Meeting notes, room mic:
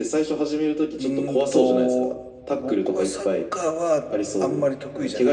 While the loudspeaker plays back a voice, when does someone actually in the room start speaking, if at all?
1.0 s

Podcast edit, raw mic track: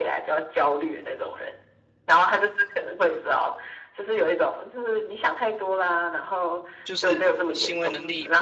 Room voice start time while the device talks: 6.8 s

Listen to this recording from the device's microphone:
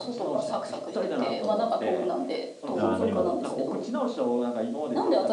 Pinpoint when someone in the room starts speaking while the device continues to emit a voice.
2.7 s

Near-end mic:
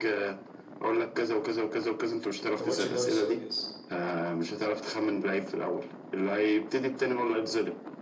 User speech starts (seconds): 2.6 s

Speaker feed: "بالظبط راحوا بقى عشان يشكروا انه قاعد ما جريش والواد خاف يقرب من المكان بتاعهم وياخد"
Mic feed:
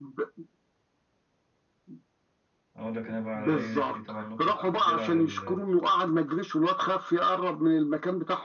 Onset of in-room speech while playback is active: 2.8 s

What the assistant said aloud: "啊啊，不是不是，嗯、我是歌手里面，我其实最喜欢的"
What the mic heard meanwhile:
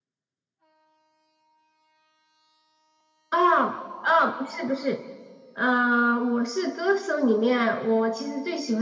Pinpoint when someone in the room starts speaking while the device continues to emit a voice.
none

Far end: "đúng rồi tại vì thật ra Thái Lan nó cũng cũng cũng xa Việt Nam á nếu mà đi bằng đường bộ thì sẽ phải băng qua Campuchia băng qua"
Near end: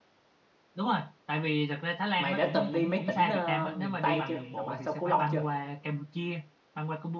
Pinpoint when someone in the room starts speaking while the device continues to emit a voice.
2.1 s

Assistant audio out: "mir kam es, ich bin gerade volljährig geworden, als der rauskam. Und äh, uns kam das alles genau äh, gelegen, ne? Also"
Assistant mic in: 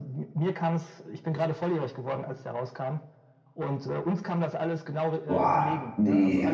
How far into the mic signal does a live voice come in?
5.2 s

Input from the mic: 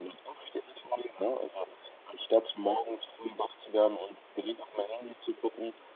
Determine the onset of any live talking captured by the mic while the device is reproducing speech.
none

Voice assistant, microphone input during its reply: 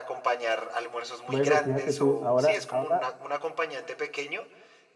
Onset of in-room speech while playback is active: 1.2 s

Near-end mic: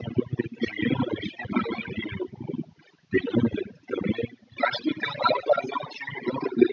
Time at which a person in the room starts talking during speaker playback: none

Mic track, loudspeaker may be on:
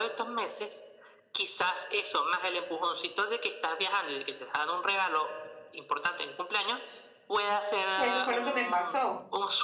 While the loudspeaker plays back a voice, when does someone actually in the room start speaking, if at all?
8.0 s

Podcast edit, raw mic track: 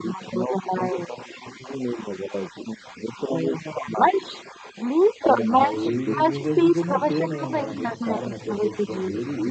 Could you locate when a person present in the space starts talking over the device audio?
5.5 s

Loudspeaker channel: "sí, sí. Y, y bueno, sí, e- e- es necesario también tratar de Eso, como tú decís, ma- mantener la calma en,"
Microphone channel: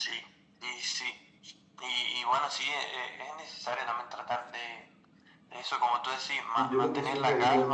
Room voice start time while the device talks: 6.5 s

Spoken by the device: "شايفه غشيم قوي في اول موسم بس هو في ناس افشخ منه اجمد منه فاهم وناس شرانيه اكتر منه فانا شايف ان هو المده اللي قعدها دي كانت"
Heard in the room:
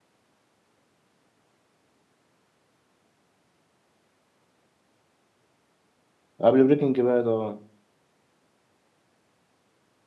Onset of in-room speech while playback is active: 6.4 s

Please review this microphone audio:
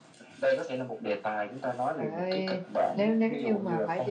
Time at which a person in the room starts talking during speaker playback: 2.0 s

